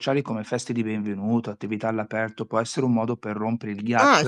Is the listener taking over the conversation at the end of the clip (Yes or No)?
Yes